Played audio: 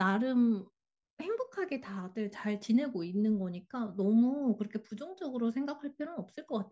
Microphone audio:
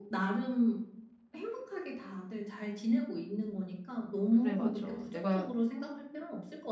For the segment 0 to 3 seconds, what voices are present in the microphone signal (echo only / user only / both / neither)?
echo only